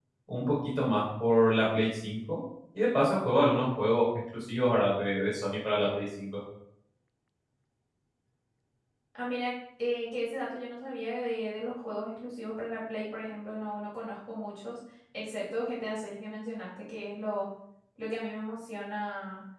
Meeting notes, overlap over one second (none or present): none